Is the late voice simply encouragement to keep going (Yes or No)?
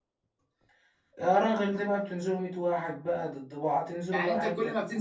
No